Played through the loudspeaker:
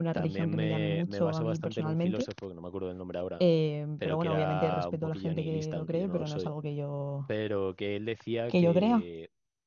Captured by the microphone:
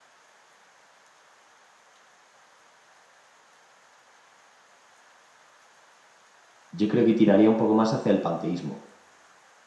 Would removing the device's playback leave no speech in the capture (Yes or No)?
No